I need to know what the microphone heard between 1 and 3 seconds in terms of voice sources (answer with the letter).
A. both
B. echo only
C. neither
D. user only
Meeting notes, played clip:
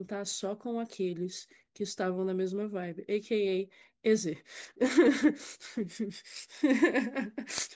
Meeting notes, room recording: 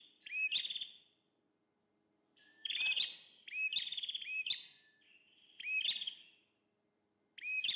C